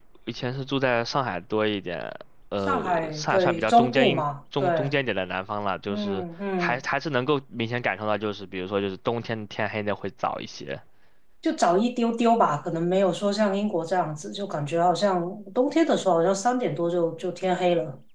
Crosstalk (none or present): present